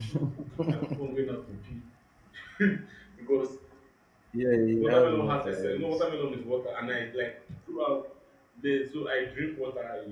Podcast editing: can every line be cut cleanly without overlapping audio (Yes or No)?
No